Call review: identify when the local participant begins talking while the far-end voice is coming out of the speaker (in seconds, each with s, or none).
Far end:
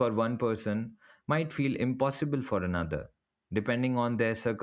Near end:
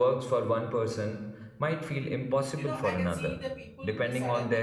2.6 s